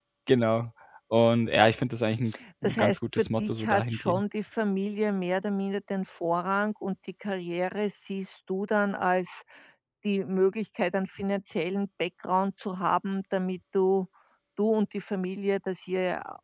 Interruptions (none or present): present